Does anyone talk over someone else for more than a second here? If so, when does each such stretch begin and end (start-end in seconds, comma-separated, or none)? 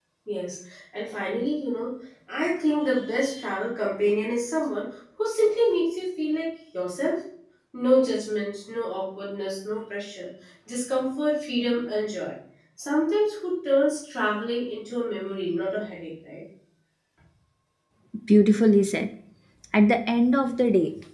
none